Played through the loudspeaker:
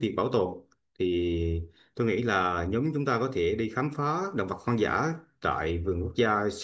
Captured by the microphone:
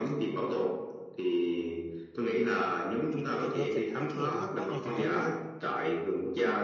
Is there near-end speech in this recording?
Yes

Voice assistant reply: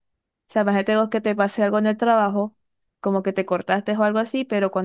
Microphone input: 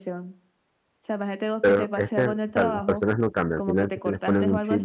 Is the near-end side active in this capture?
Yes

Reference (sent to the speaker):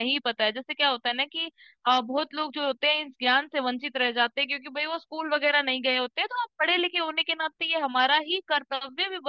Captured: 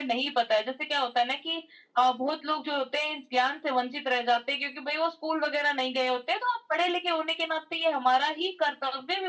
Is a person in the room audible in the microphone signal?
No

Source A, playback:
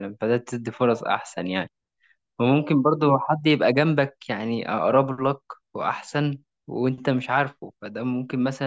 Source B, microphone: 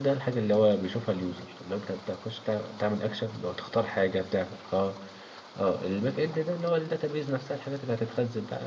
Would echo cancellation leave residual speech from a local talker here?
Yes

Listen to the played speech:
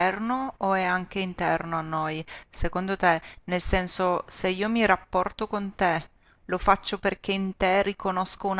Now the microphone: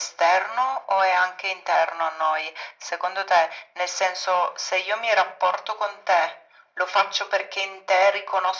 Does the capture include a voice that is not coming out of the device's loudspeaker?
No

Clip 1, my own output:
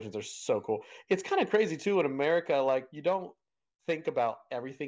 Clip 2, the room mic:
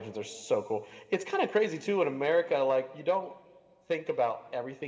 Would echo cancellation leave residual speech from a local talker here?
No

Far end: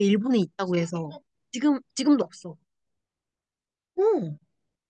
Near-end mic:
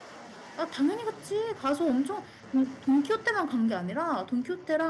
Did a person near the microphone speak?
Yes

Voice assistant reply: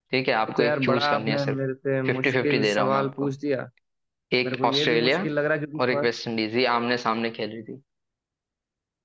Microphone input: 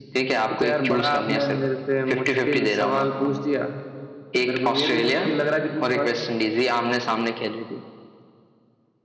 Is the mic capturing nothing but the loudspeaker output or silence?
Yes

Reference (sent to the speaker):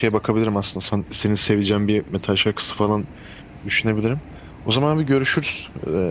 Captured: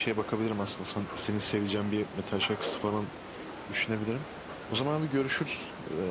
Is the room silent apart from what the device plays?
Yes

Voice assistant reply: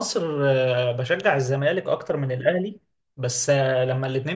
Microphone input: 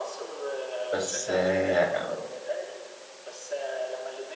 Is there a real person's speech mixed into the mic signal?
Yes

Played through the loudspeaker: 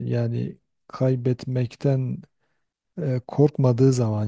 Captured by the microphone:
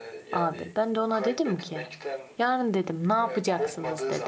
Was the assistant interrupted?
Yes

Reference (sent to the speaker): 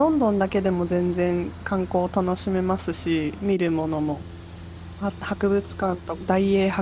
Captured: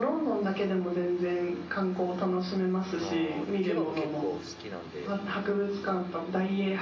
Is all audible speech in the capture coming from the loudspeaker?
No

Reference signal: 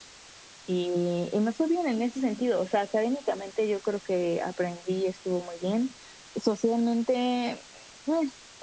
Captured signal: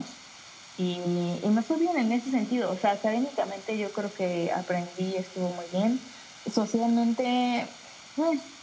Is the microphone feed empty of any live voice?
Yes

